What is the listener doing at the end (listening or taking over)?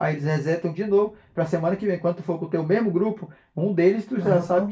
listening